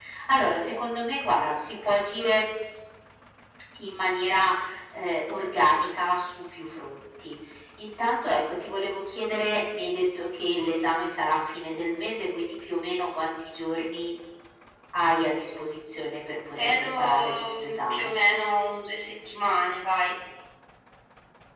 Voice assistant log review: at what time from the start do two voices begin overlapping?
17 s

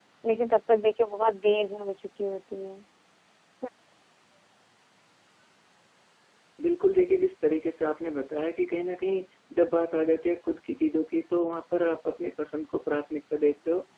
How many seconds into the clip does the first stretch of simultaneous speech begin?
none

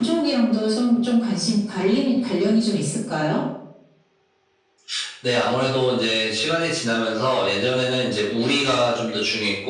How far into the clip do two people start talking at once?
none

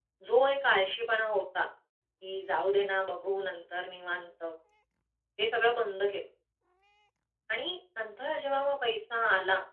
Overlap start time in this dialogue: none

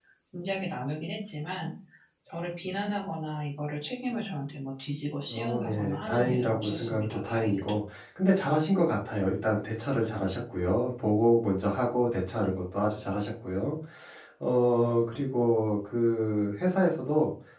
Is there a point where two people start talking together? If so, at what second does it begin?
5 s

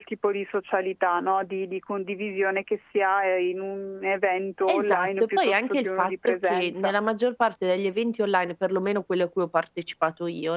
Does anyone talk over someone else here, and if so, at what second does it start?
5 s

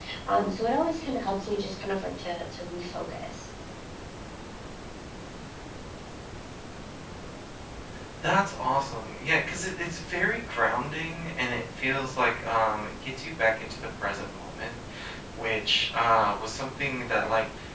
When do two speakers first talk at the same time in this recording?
none

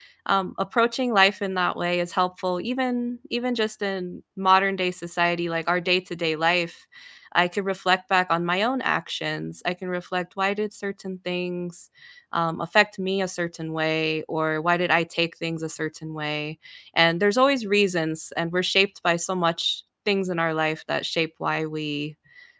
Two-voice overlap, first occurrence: none

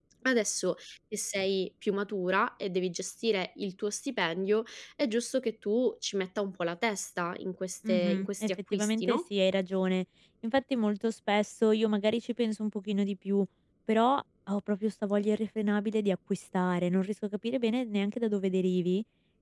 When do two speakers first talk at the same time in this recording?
8 s

